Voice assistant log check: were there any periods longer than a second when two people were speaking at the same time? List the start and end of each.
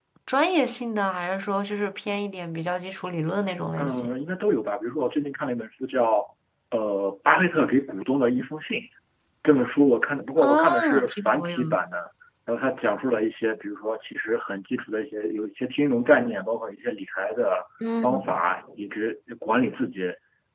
10.4-11.6

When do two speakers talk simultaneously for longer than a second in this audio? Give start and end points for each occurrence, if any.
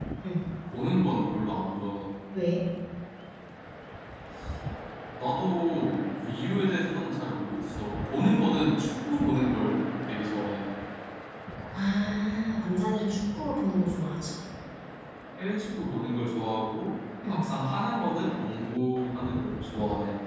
none

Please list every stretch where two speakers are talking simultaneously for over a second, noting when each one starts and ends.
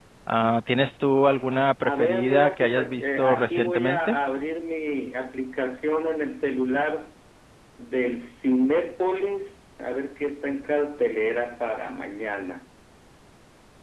1.8-4.2

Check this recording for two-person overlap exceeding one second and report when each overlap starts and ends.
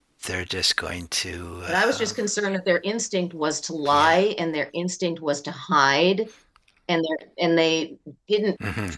none

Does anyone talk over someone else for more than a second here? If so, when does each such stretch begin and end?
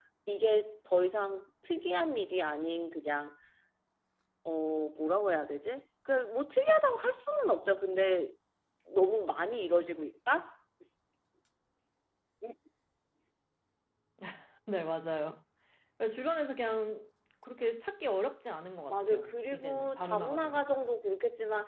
18.9-20.6

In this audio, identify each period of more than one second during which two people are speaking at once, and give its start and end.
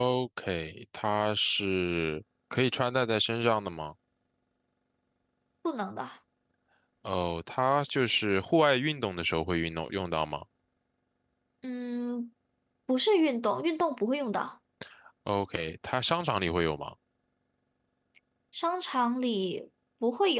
none

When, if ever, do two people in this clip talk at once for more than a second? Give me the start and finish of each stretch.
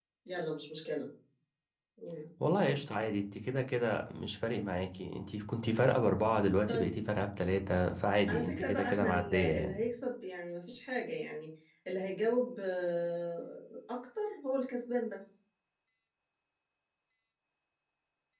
8.3-9.7

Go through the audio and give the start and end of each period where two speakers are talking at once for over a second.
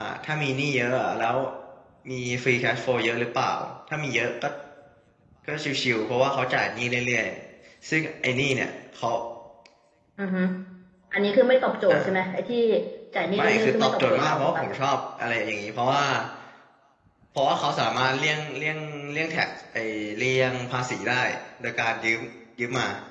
13.2-14.6

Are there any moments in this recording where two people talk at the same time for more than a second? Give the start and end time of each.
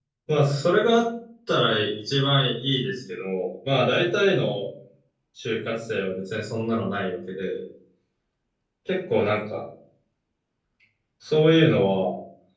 none

